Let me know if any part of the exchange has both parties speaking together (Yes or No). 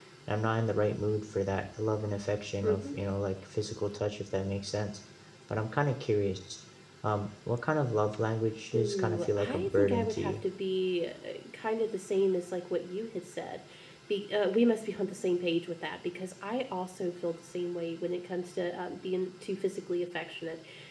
Yes